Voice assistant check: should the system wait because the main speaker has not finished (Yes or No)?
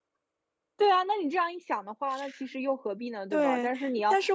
No